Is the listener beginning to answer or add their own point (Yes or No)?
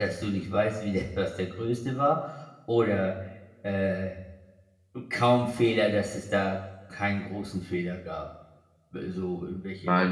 Yes